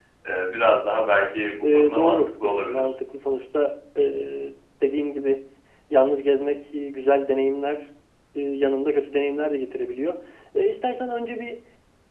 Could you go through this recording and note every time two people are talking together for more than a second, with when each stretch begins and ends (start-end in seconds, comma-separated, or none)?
1.6-2.9